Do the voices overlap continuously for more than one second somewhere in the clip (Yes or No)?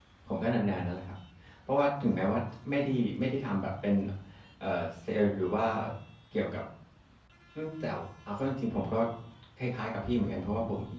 No